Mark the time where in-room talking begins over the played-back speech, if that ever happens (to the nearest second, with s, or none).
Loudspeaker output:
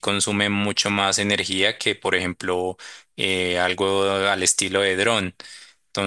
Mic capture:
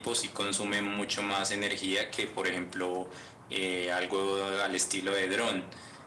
none